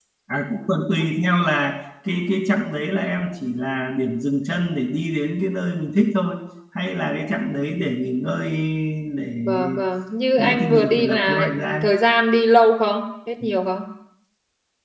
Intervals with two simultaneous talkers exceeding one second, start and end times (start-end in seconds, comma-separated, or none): 10.4-11.9